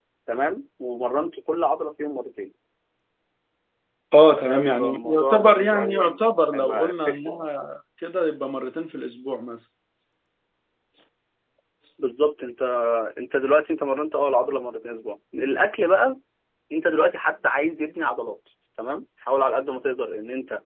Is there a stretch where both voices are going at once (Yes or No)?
Yes